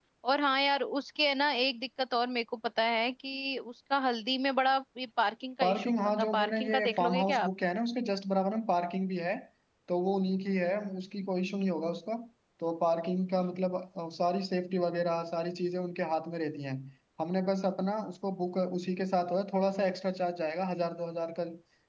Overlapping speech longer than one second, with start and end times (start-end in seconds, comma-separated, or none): 5.6-7.5